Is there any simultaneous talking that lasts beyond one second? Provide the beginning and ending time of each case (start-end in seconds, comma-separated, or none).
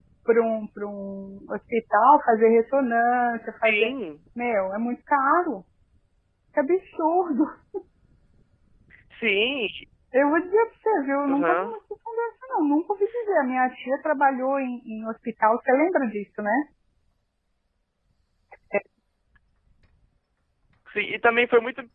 none